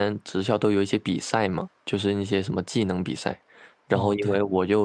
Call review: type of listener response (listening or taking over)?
listening